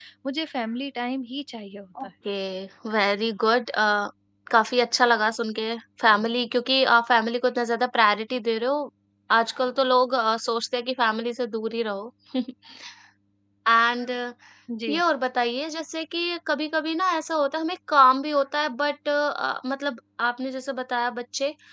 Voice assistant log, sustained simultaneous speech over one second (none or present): none